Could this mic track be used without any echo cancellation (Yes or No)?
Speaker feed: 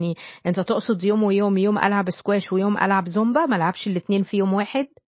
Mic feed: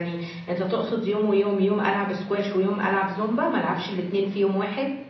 No